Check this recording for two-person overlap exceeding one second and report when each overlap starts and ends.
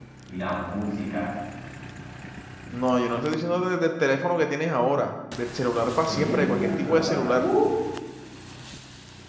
6.0-7.5

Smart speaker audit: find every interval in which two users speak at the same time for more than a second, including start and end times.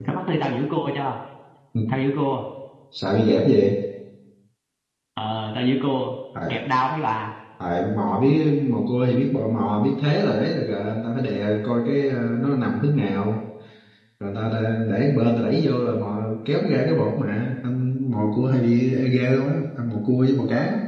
none

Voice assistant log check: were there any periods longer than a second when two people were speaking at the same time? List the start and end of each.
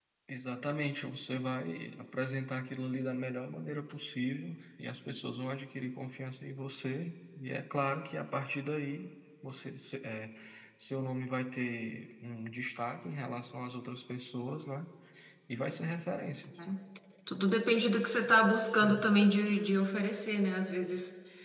none

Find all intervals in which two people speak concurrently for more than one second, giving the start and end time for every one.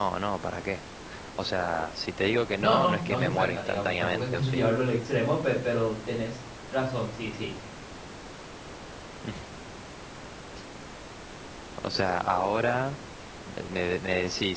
2.6-4.7

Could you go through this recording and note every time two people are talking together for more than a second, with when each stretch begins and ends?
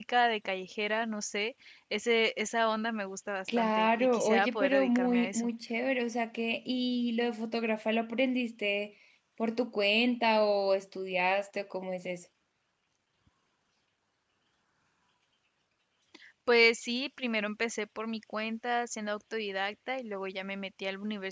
3.6-5.5

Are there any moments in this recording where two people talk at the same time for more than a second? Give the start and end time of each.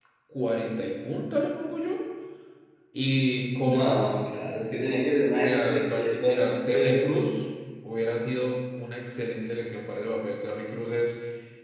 5.4-6.9

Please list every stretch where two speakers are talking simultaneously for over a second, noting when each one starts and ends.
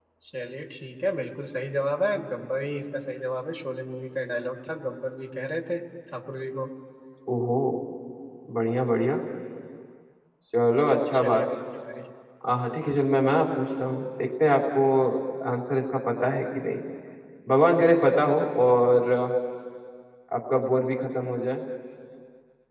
none

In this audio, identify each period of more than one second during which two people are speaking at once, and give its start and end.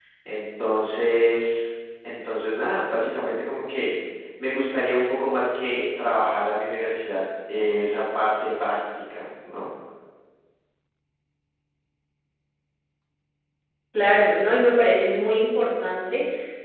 none

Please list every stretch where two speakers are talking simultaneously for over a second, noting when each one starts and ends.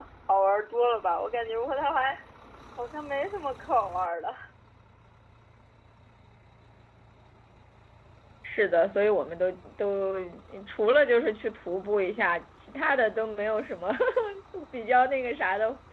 none

